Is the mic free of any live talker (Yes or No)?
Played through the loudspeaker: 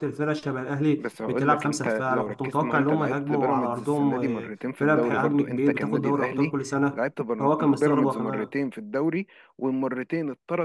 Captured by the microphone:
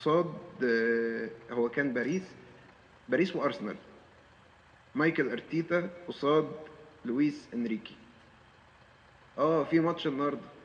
No